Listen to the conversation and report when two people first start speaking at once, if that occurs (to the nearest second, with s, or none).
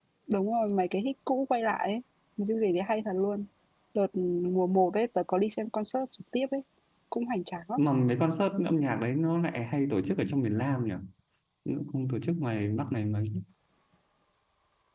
none